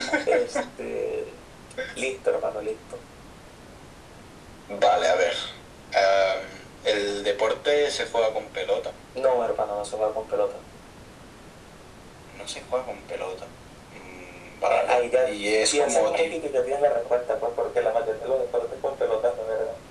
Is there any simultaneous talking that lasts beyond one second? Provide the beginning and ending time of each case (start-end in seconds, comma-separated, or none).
14.7-16.4